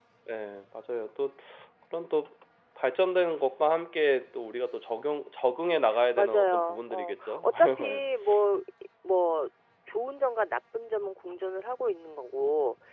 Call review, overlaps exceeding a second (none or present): present